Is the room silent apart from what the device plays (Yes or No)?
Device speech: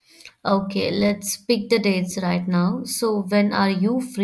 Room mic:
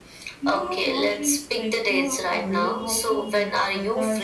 No